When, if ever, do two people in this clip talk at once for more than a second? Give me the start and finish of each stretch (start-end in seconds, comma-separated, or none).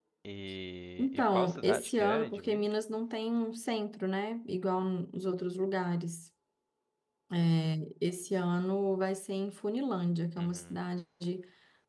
1.0-2.7